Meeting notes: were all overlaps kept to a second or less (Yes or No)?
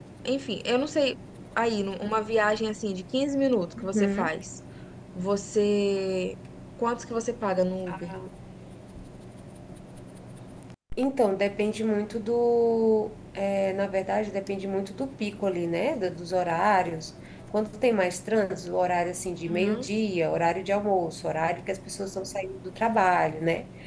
Yes